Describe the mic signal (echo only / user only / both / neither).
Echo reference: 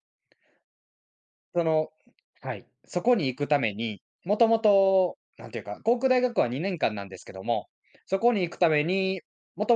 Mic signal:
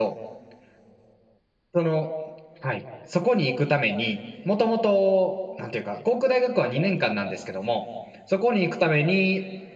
echo only